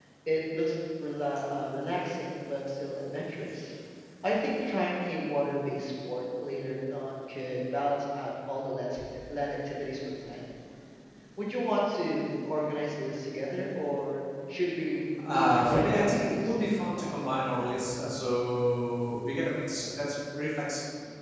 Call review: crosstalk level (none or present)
present